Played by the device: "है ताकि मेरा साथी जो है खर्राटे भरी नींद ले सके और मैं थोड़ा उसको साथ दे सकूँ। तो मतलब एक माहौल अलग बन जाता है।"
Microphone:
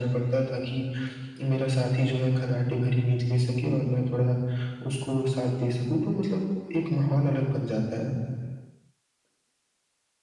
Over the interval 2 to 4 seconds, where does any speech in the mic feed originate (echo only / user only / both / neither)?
echo only